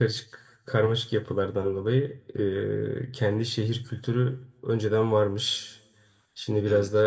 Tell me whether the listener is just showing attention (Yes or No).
Yes